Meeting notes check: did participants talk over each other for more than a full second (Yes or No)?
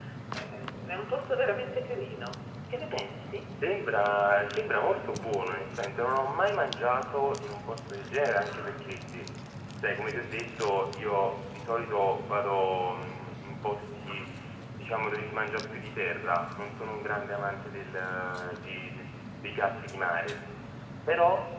No